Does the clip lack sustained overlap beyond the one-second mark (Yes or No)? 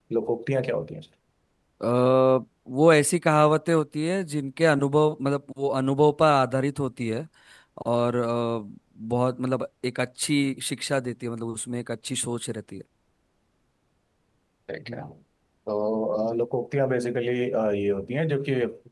Yes